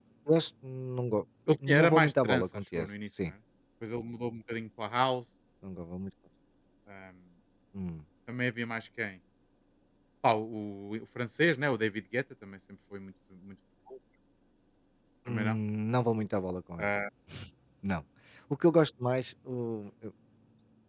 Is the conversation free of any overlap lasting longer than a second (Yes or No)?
No